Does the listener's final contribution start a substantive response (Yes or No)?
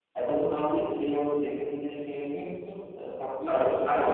Yes